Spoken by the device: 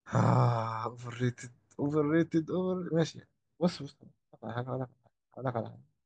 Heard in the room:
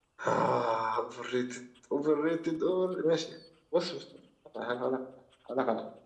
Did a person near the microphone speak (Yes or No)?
No